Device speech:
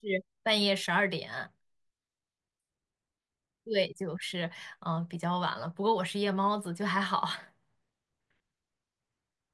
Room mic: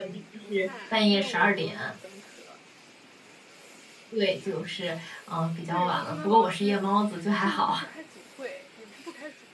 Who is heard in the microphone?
both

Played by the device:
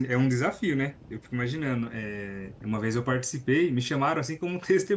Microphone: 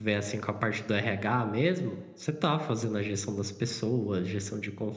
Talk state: user only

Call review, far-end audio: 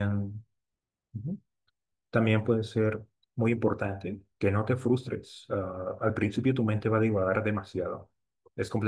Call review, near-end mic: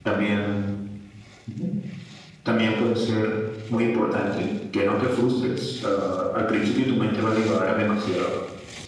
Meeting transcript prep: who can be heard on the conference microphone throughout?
echo only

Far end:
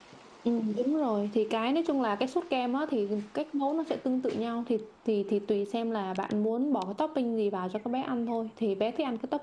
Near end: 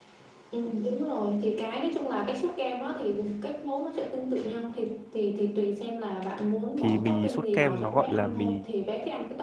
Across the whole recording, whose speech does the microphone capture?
both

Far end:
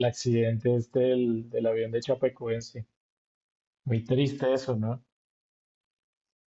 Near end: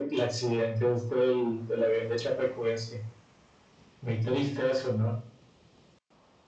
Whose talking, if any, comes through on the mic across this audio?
echo only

